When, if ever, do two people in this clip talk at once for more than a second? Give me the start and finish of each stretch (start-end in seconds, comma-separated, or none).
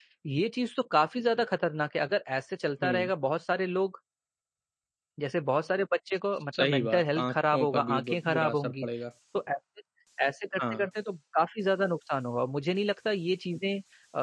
6.6-8.9